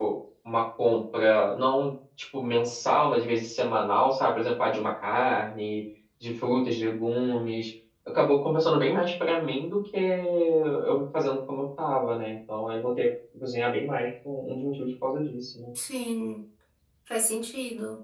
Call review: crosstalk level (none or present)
none